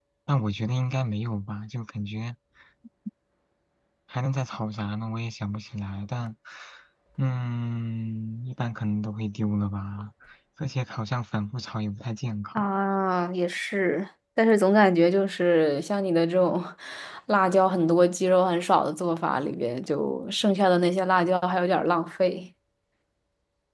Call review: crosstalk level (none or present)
none